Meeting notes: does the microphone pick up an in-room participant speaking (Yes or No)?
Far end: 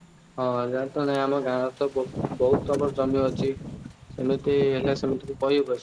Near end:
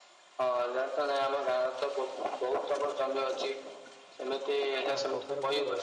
Yes